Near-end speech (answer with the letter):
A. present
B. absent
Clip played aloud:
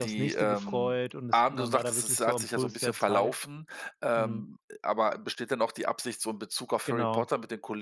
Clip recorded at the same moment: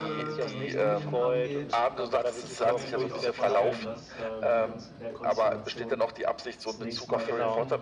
A